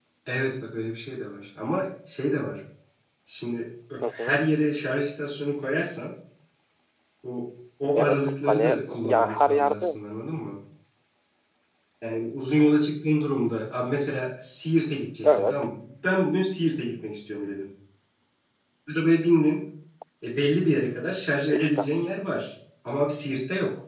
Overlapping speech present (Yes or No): Yes